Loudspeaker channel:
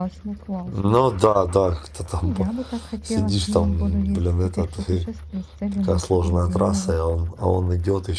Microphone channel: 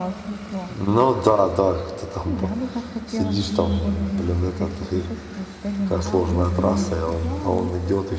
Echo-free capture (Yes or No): No